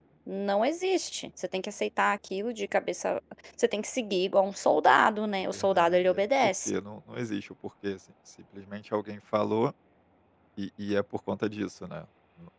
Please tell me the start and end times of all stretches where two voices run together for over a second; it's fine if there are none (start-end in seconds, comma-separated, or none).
5.5-6.8